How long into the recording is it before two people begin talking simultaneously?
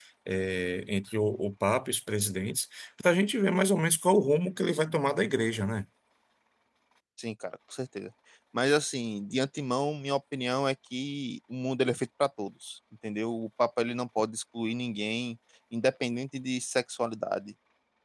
none

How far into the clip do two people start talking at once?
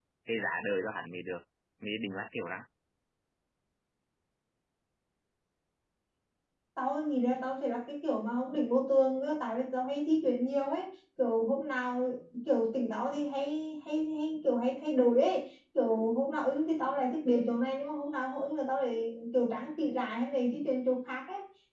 none

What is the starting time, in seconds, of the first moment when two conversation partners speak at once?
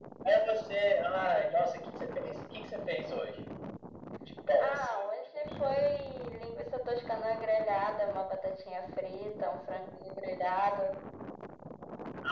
4.6 s

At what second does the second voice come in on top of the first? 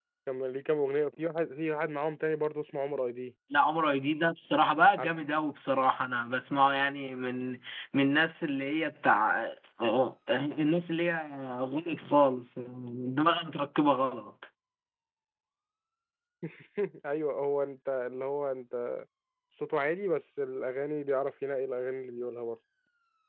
none

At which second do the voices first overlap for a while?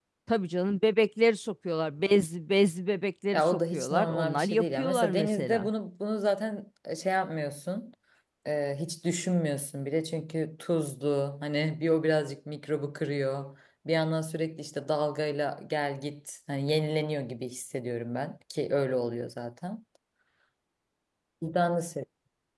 3.3 s

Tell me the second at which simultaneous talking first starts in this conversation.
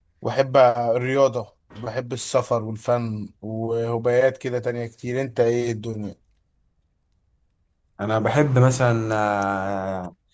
none

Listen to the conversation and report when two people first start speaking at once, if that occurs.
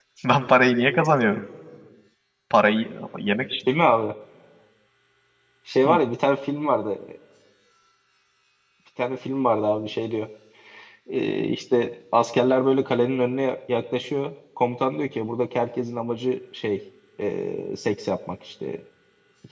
none

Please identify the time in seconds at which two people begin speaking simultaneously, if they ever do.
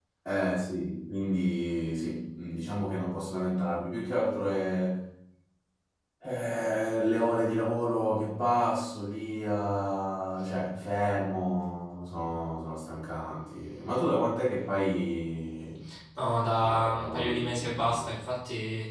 16.6 s

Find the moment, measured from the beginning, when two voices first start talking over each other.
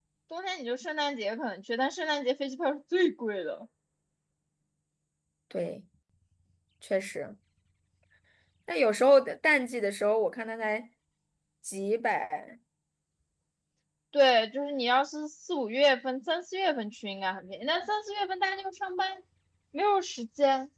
none

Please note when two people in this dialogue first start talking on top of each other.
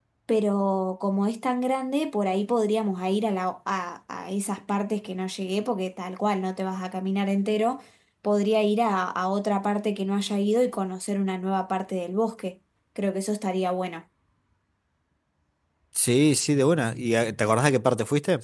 none

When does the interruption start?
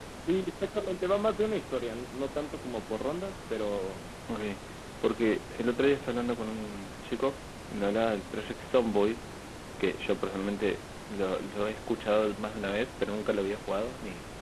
none

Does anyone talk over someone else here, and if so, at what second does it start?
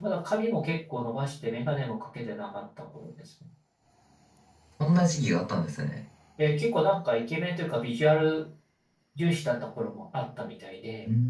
none

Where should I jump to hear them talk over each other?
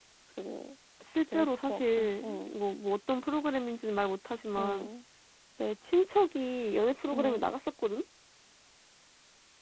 1.3 s

